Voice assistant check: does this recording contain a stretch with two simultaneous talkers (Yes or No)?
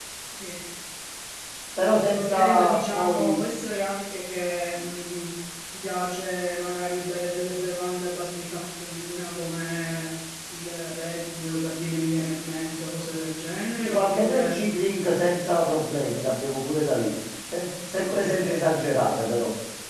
Yes